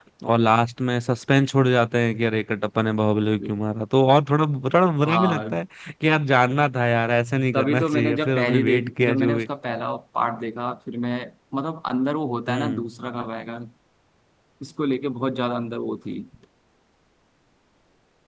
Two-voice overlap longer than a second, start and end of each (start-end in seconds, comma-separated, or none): 7.5-9.5